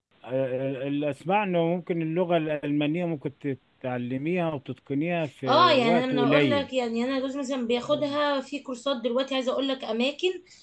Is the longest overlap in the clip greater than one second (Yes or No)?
Yes